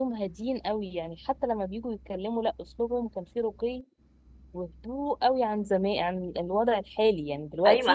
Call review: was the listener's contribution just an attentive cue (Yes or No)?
No